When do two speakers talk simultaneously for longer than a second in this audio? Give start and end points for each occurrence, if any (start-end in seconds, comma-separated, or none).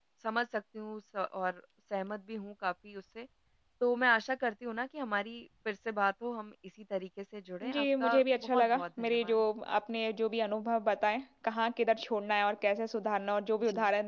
7.6-9.4